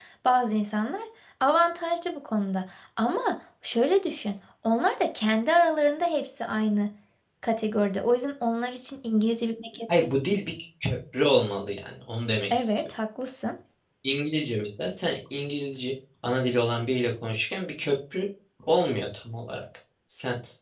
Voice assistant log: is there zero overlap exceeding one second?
Yes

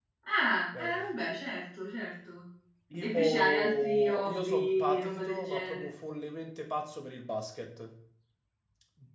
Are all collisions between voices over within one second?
No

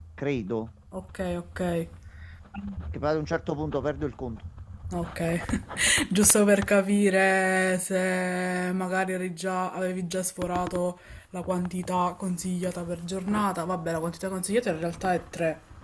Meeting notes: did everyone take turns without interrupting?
Yes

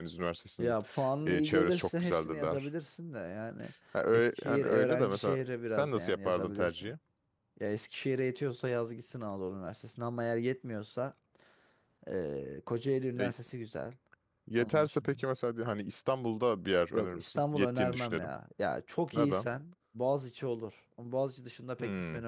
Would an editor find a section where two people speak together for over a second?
Yes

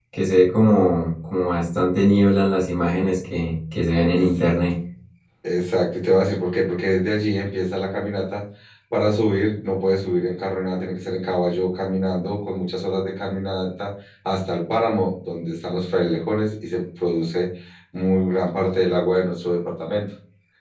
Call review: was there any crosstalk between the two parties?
No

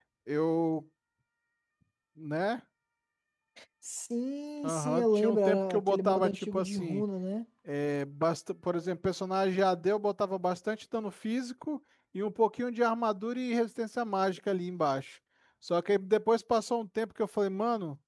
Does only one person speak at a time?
No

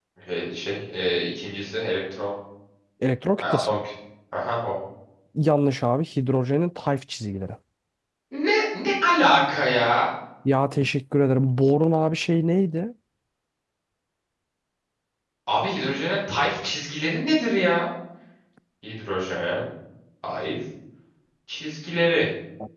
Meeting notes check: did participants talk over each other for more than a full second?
No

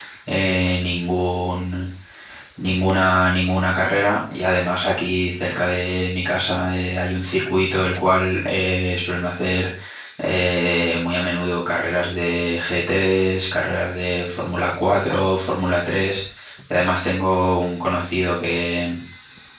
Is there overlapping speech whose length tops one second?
No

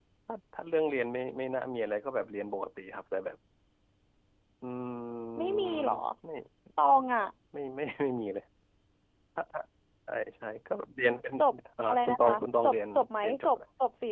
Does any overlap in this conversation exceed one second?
Yes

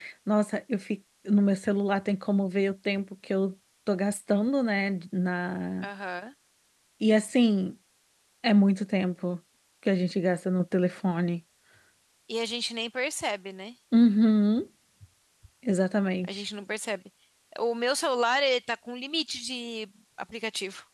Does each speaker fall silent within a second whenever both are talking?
Yes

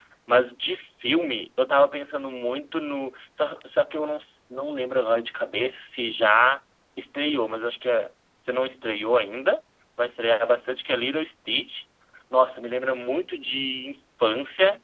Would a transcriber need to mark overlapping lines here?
No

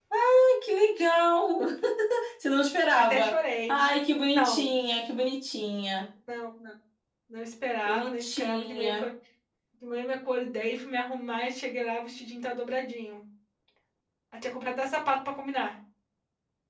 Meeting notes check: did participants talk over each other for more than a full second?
Yes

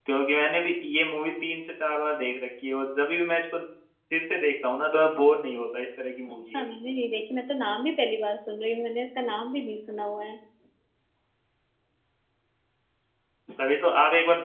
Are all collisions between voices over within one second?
Yes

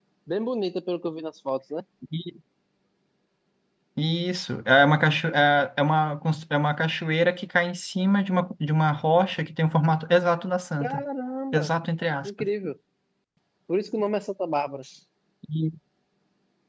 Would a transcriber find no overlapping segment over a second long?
Yes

